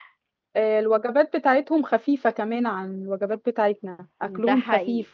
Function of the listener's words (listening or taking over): taking over